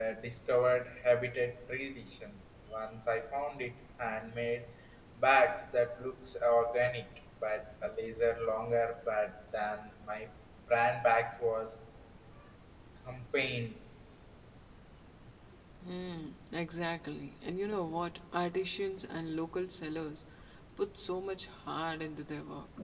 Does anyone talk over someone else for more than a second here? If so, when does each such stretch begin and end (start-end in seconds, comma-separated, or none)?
none